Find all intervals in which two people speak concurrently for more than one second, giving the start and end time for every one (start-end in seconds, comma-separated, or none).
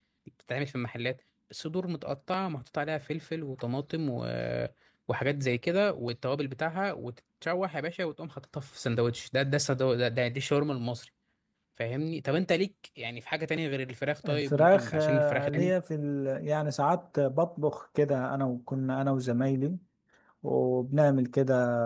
14.3-15.7